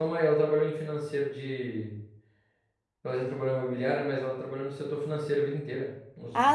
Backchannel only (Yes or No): No